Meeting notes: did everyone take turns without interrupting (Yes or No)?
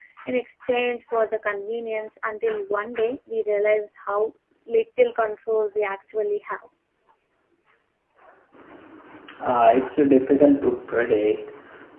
Yes